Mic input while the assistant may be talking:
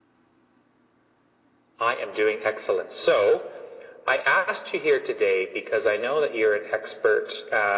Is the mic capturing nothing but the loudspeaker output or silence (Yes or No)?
Yes